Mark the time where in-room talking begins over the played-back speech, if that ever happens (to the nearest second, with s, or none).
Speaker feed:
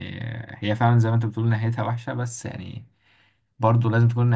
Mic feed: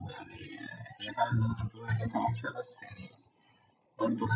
none